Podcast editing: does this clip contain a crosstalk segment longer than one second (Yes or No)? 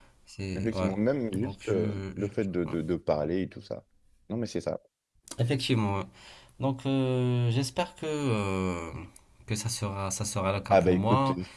Yes